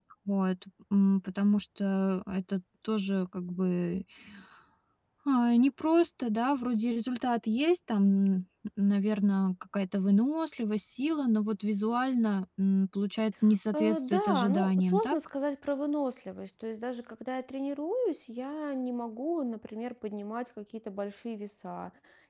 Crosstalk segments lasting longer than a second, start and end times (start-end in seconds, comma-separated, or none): 13.8-15.2